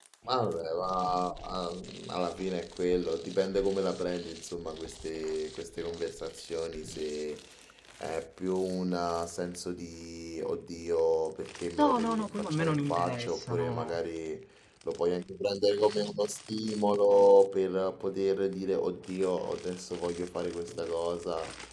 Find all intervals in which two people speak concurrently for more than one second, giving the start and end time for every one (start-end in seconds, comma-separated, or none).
11.8-13.9